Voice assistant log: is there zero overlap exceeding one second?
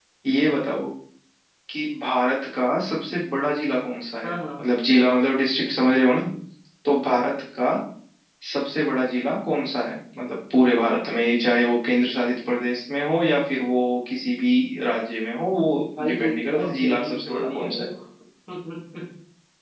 No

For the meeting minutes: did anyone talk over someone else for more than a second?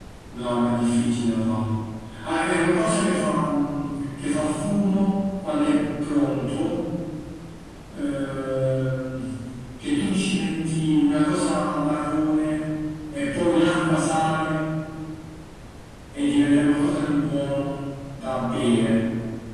No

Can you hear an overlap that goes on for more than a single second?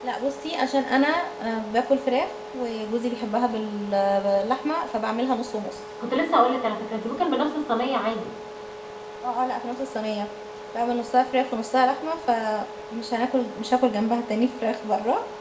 No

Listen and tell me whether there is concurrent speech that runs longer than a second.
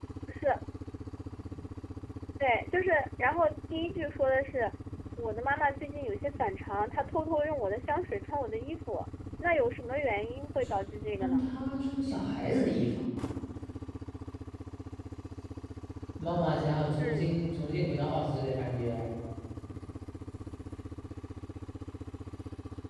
No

